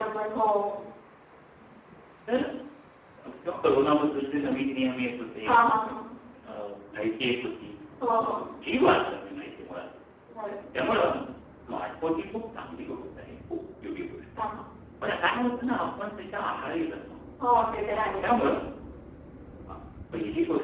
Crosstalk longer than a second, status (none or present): none